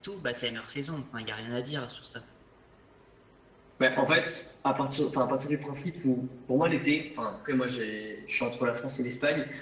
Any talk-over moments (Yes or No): No